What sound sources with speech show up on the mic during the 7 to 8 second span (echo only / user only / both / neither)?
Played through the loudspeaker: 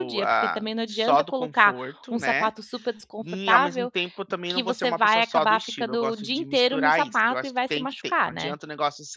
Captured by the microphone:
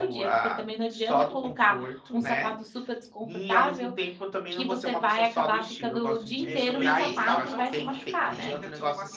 both